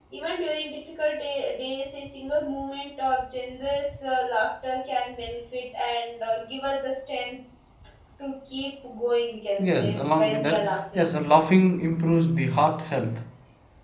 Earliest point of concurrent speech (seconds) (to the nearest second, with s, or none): 10 s